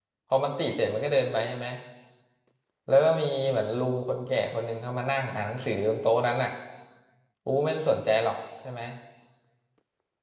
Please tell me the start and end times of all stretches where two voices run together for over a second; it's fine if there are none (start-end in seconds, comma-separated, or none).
none